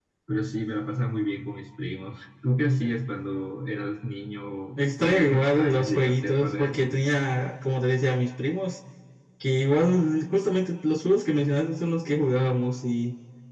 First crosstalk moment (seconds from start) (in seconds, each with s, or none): 4.8 s